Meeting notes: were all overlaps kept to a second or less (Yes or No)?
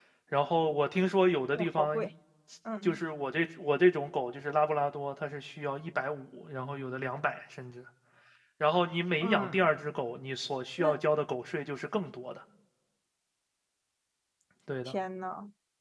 Yes